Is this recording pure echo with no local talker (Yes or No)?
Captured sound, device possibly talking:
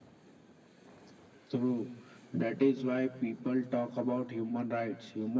Yes